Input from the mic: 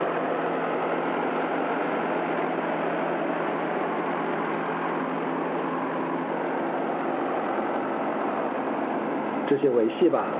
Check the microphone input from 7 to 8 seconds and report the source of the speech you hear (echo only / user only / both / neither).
neither